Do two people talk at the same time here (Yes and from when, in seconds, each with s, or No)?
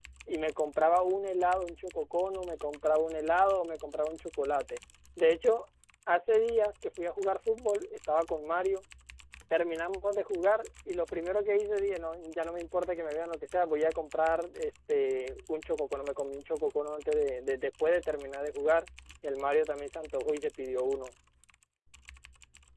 No